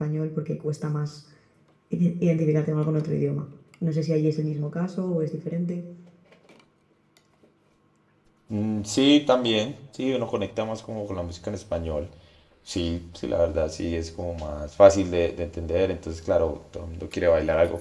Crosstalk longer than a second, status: none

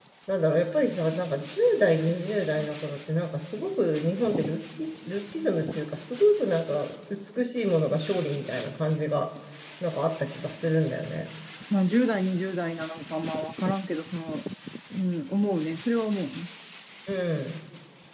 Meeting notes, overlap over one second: none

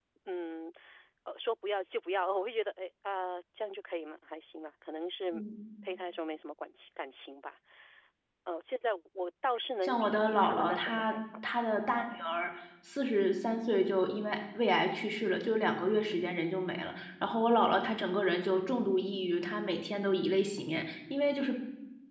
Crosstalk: present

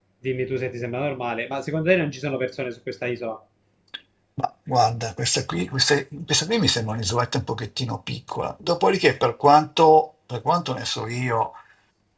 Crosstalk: none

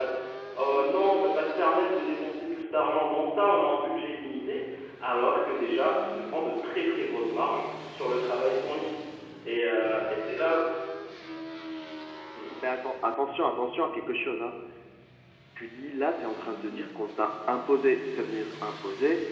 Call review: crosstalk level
none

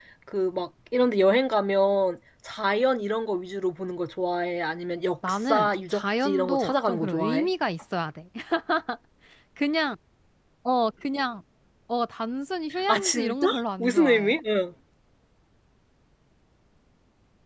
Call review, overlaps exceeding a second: present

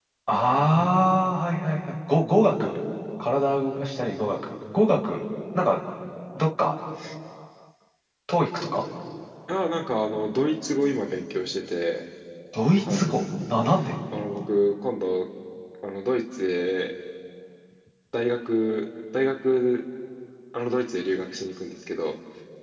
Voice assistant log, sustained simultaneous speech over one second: none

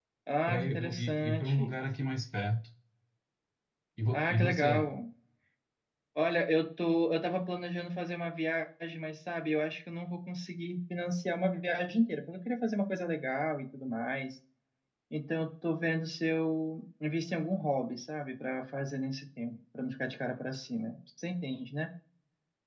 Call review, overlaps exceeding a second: present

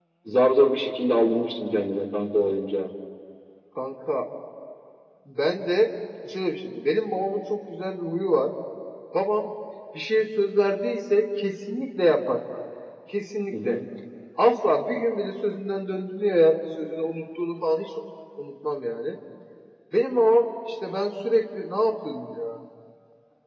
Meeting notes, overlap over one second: none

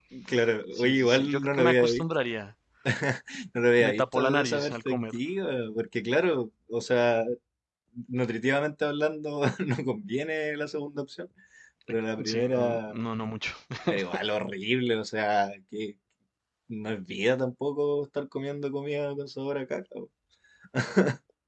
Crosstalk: present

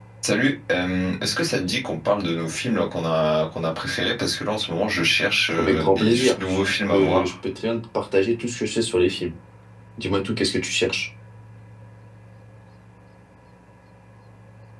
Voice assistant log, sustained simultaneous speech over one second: present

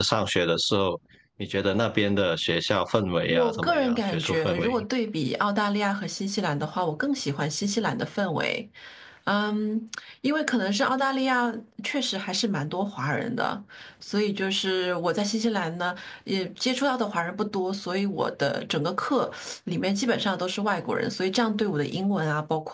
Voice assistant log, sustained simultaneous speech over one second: present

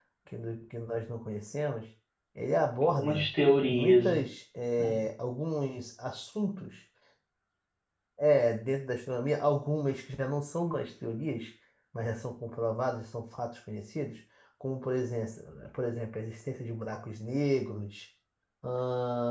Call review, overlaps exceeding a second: none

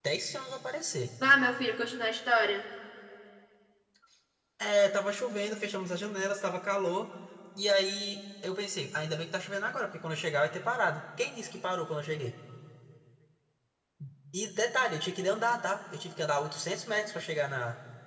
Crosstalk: none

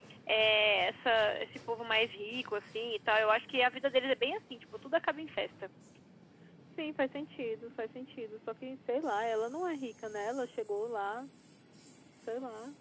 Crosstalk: none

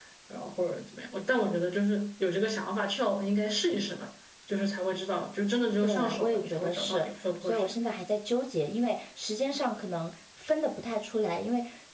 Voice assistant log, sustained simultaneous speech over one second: present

